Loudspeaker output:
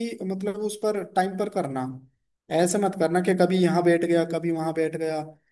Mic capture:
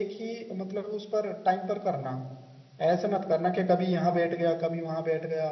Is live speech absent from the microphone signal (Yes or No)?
Yes